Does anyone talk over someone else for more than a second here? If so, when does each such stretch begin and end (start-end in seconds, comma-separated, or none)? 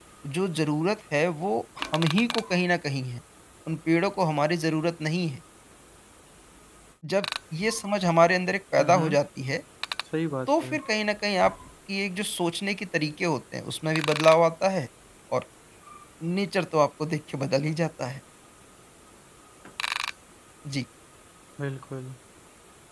none